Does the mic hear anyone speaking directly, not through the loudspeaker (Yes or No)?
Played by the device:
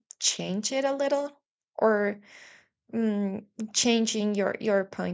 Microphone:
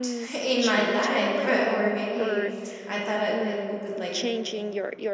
Yes